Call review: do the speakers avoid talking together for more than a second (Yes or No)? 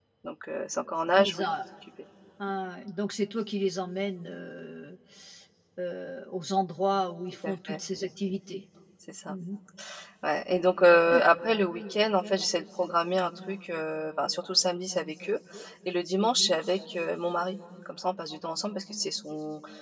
Yes